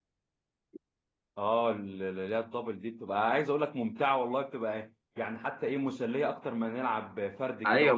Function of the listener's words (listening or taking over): taking over